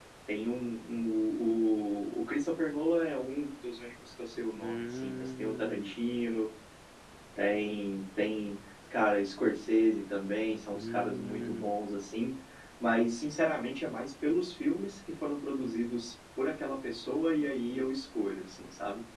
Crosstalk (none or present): present